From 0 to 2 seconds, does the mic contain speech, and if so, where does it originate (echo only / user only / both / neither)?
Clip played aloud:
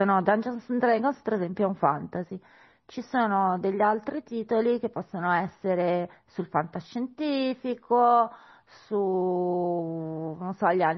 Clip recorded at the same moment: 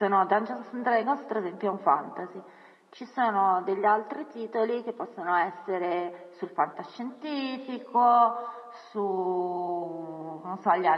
echo only